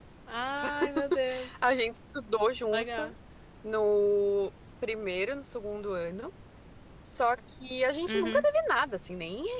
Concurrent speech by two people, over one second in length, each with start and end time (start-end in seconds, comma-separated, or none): none